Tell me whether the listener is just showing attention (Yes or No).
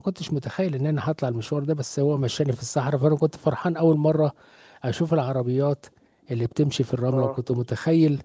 Yes